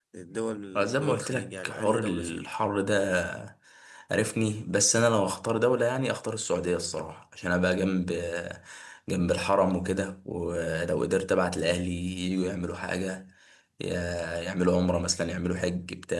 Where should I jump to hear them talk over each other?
0.8 s

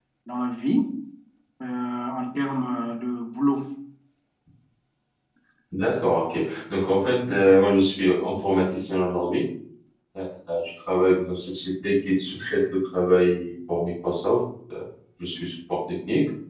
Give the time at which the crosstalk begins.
none

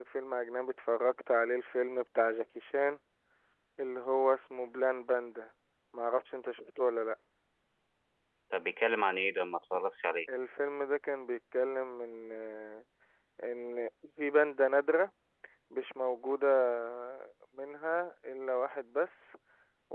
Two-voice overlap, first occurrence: none

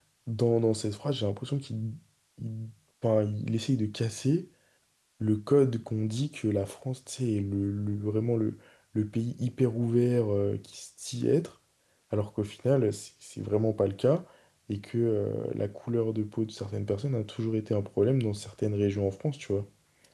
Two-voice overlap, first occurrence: none

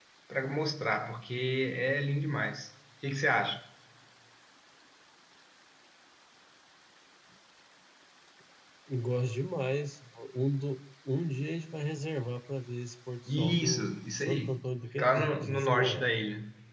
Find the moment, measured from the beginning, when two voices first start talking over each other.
13.3 s

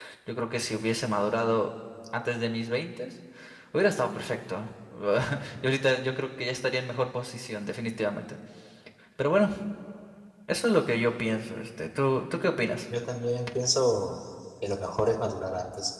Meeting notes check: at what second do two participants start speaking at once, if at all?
none

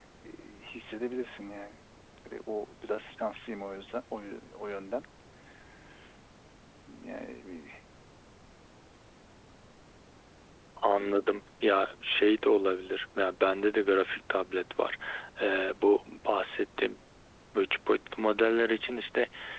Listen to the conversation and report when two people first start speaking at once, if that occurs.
none

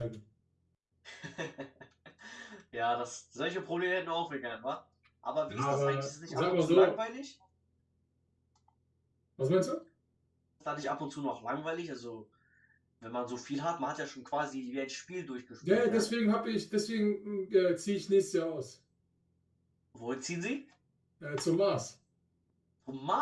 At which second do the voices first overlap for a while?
5.5 s

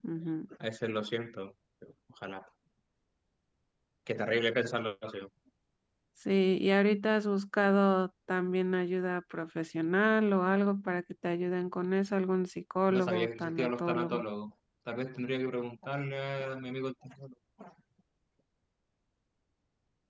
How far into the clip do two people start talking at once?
12.9 s

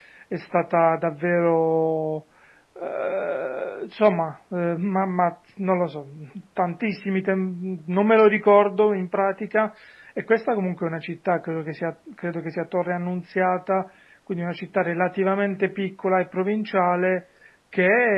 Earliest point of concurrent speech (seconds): none

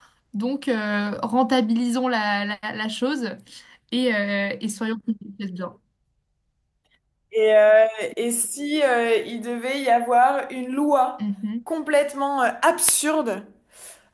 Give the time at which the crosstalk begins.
none

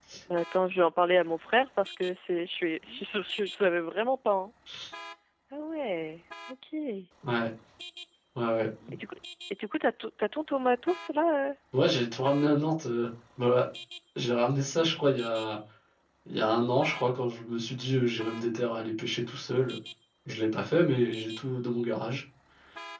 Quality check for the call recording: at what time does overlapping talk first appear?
none

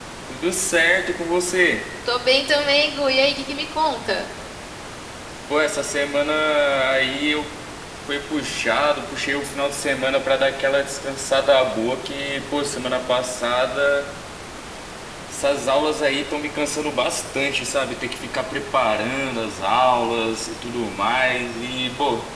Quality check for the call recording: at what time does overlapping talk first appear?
none

